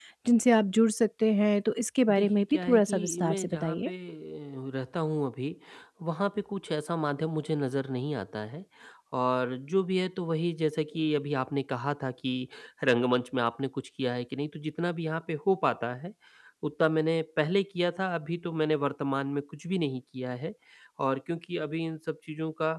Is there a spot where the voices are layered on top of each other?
Yes, from 2.1 s

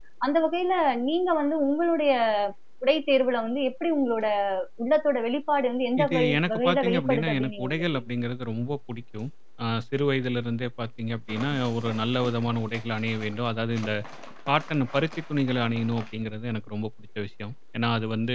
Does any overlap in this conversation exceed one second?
Yes, from 6.0 s

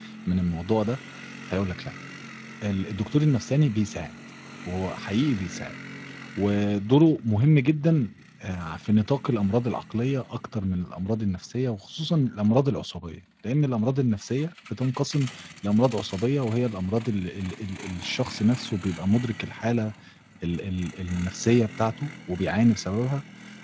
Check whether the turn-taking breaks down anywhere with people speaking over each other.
No

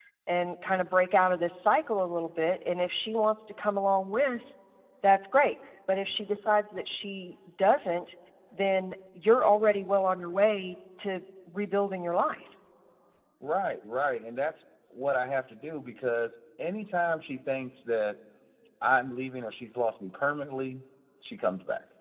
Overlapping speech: No

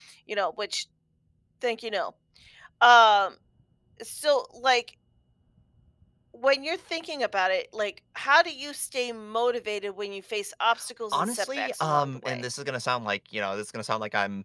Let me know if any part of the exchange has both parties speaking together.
Yes, from 11.1 s

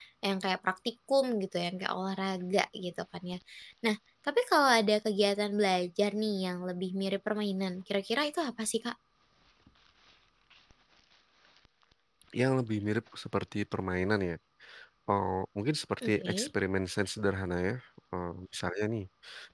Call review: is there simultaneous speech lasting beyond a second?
No

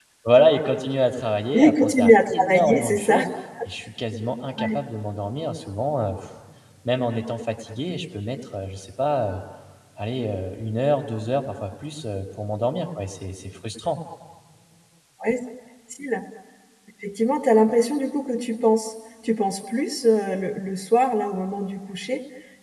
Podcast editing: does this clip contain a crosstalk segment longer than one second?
Yes, from 1.5 s

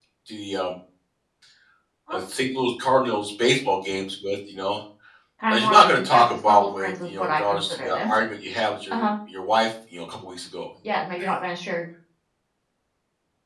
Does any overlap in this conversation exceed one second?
Yes, from 5.5 s

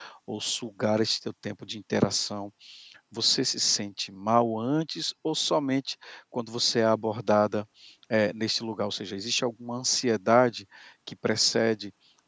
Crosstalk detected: No

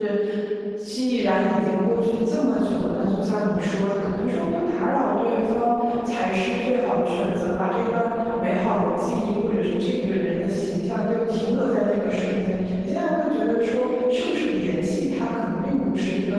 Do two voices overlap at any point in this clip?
No

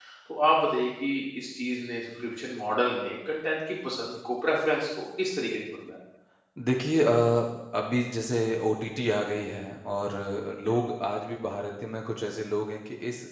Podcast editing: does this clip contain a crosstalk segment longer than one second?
No

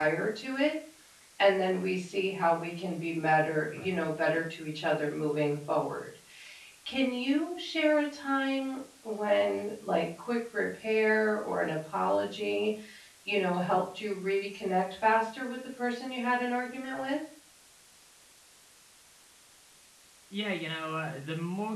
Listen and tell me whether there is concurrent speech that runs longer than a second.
No

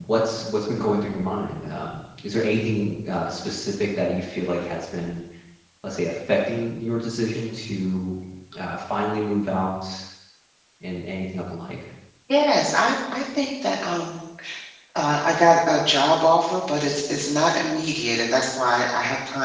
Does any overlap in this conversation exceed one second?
No

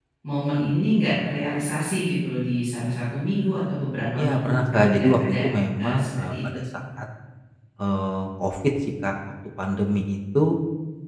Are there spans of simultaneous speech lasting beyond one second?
Yes, from 4.2 s

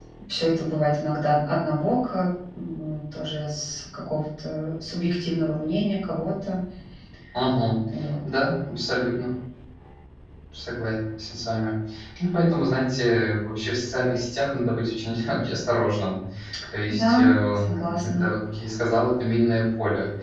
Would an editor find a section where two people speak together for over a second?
Yes, from 17.0 s

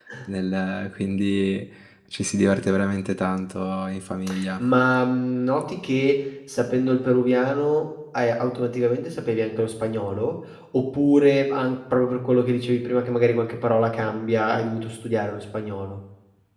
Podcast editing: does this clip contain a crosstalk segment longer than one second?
No

